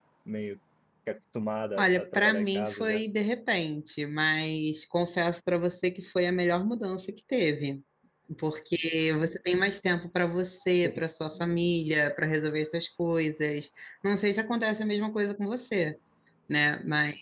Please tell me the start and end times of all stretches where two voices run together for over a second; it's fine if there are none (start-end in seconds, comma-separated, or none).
1.8-3.0